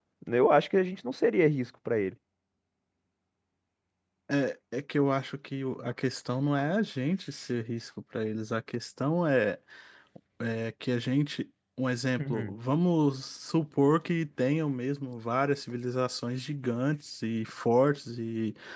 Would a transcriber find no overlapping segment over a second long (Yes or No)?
Yes